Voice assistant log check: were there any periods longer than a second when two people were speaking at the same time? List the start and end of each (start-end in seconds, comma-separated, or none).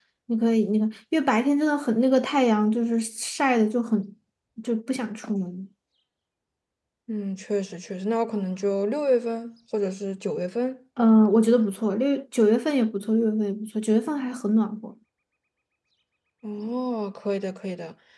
none